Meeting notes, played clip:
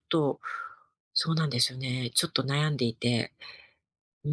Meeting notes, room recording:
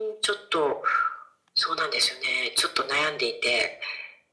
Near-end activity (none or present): none